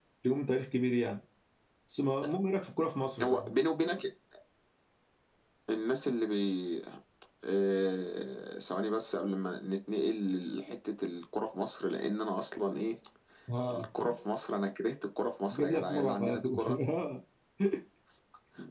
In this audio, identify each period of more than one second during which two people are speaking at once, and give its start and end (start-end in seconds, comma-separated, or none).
15.5-16.8